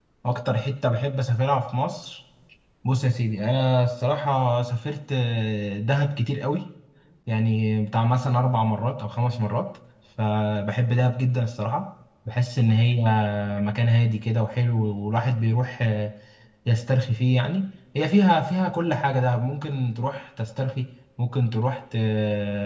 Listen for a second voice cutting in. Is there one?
No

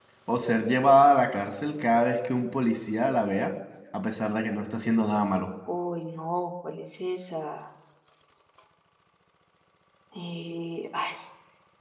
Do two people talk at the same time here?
No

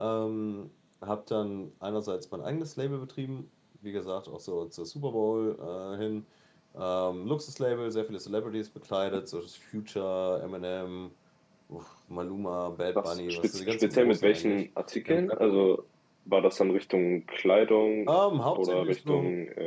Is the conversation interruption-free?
No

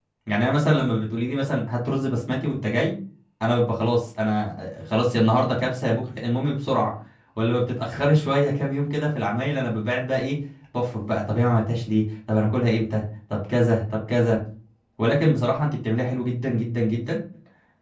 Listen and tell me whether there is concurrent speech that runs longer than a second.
No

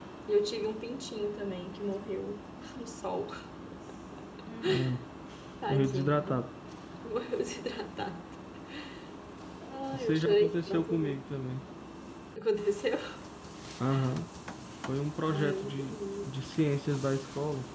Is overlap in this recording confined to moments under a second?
No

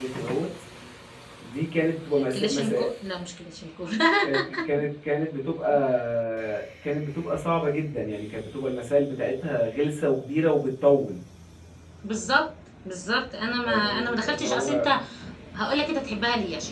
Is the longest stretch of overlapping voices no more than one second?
No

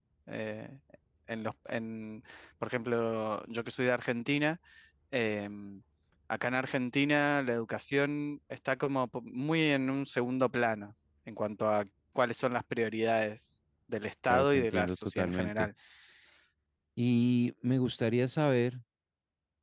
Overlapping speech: Yes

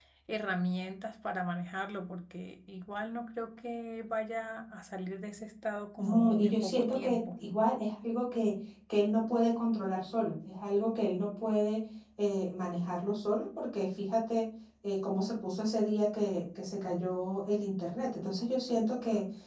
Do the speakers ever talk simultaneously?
Yes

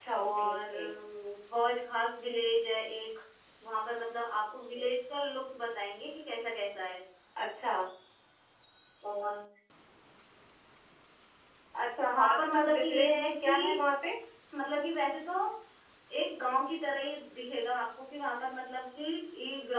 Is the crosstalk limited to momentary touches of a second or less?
No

